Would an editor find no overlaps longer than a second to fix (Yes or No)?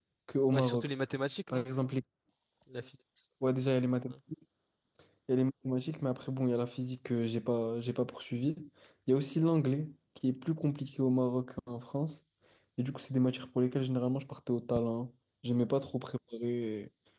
Yes